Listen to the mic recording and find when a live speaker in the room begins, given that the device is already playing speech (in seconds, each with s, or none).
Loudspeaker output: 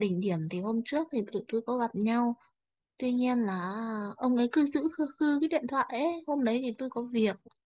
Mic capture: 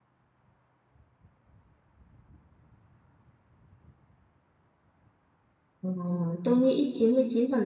5.8 s